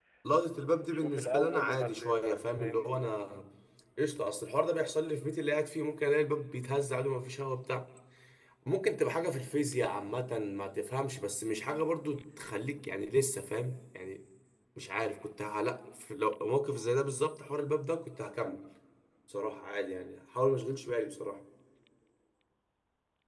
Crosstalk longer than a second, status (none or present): present